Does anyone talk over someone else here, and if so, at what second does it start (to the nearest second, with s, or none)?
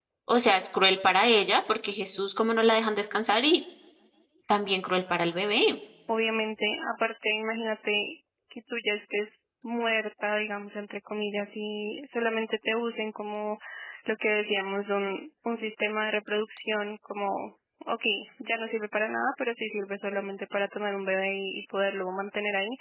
none